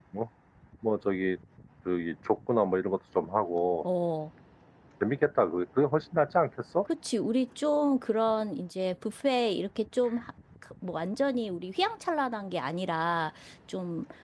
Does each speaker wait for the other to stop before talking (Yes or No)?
Yes